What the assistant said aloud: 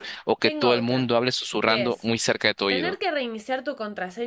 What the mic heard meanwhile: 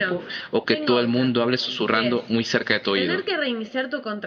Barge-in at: none

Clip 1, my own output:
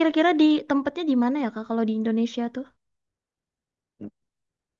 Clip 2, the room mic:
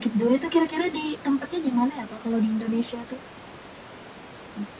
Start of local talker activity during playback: none

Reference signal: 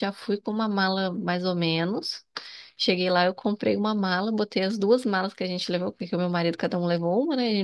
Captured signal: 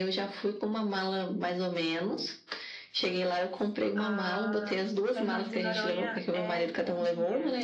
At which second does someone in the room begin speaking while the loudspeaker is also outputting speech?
3.9 s

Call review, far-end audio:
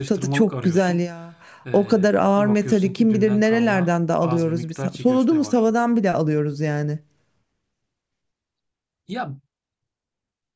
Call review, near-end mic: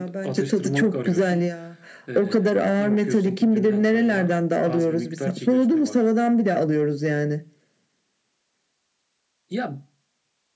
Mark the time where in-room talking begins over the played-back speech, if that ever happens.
none

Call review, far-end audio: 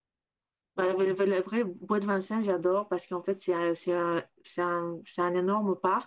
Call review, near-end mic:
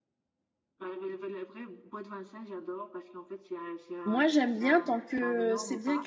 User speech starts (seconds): 4.0 s

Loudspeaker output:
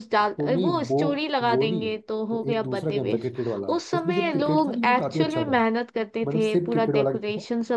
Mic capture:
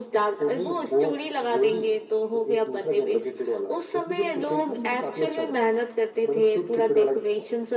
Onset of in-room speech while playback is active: none

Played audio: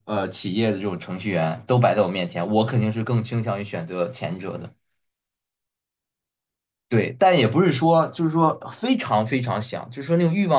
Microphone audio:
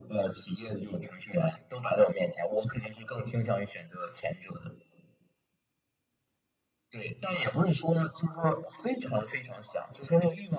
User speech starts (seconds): none

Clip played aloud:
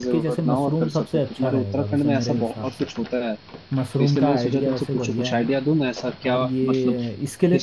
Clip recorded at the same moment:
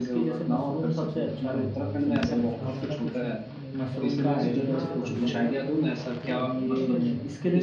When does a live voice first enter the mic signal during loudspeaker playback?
2.6 s

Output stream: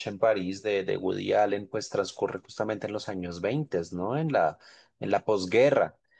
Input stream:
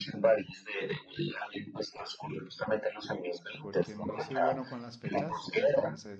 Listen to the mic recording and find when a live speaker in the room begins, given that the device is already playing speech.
3.6 s

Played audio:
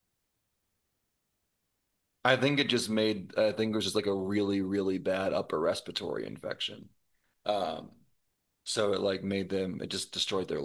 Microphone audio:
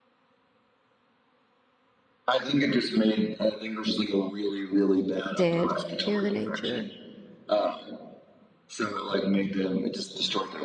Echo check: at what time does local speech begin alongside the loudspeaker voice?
5.3 s

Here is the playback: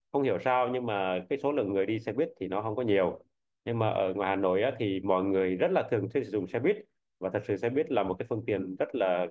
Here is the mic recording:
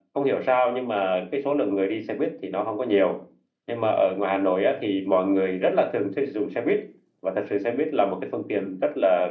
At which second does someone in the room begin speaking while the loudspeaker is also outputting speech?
none

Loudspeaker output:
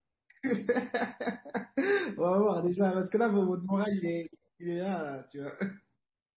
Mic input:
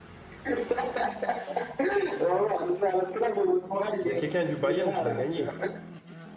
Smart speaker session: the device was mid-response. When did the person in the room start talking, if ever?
4.0 s

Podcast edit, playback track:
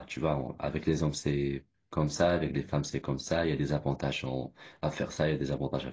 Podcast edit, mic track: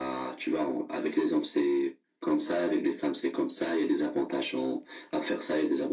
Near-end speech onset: none

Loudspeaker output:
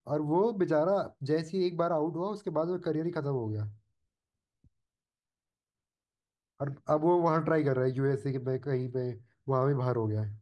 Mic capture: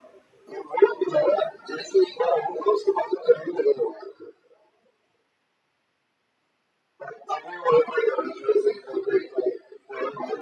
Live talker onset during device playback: none

